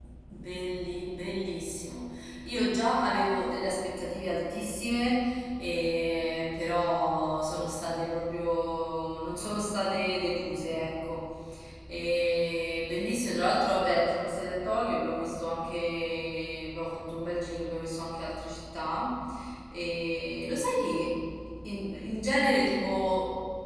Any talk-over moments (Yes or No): No